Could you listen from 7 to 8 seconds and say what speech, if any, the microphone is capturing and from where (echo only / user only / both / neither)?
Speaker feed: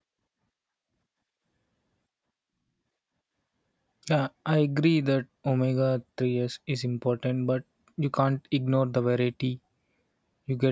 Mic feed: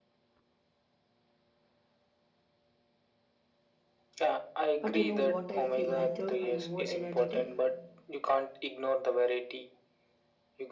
both